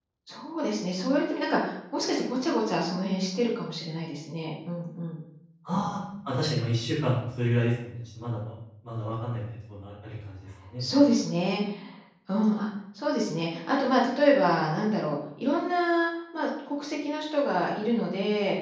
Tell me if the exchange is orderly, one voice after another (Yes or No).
Yes